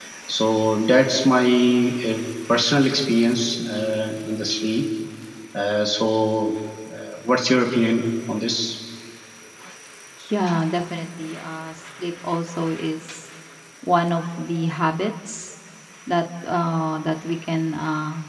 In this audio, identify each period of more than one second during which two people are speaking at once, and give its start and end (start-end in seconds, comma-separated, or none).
none